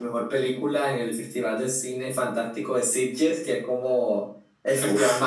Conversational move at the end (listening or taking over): listening